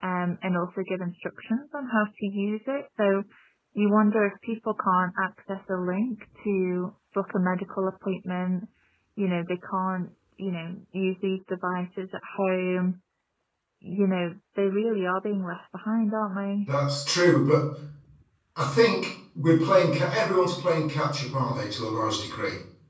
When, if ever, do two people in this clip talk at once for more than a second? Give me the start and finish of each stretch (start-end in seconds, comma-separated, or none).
none